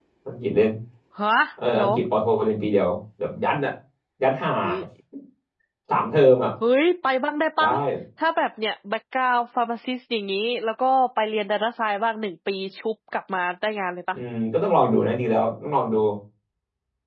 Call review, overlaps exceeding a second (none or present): none